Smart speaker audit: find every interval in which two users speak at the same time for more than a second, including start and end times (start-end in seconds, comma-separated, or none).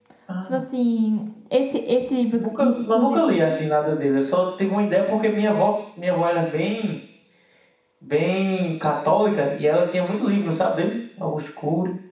2.3-3.6